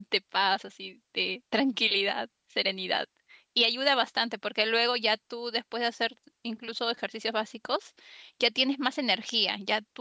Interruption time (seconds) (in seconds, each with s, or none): none